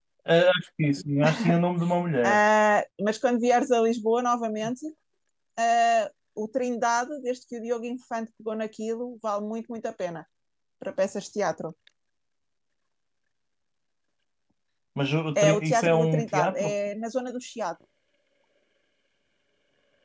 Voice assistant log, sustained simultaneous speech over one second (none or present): present